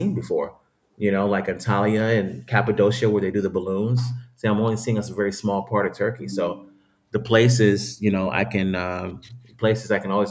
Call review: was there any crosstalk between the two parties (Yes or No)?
No